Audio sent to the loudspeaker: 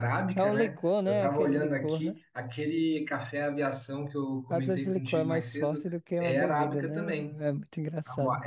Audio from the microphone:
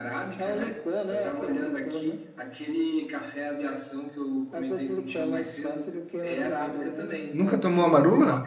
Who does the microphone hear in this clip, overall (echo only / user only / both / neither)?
both